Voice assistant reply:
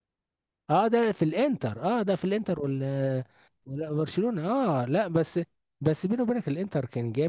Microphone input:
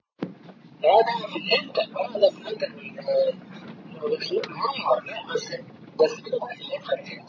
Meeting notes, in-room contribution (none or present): none